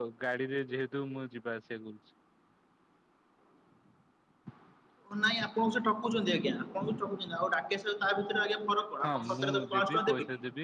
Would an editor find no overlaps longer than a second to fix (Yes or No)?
No